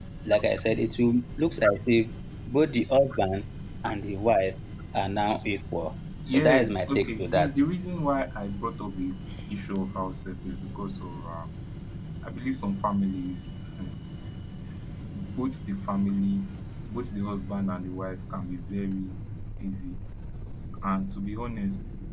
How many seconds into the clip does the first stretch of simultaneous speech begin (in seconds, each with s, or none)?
6.3 s